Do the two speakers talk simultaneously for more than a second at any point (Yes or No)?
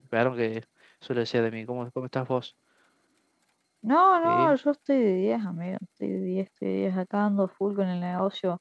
No